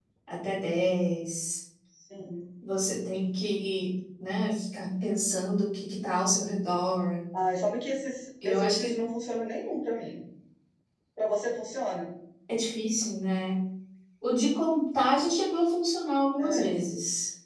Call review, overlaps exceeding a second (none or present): none